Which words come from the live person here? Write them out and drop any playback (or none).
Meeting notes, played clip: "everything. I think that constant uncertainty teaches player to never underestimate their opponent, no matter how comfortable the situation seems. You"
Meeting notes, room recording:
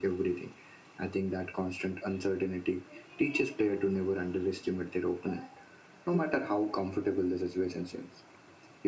none